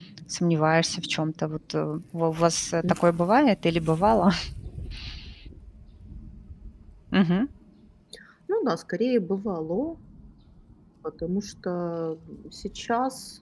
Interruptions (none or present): none